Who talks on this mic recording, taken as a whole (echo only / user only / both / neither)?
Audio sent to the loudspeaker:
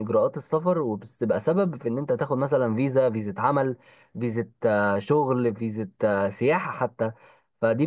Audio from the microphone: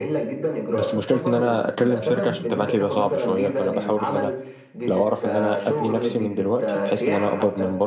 both